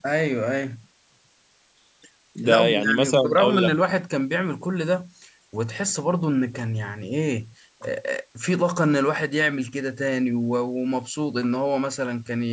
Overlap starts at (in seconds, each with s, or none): 2.4 s